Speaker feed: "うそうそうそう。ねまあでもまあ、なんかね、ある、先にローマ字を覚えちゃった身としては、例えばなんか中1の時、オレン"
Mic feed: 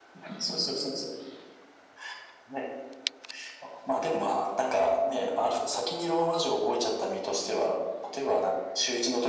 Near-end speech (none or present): none